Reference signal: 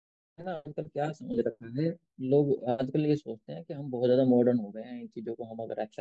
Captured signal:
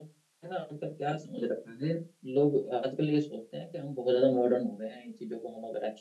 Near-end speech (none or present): none